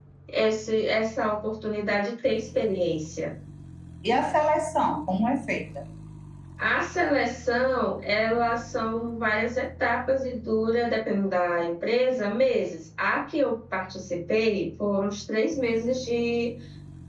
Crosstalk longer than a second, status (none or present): none